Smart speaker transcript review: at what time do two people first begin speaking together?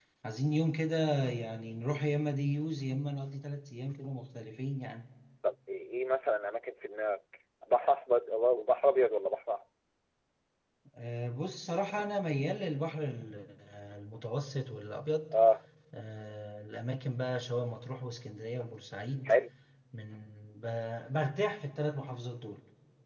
none

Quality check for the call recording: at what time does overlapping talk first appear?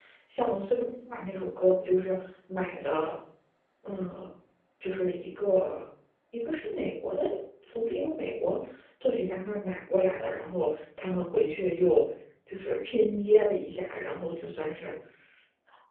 none

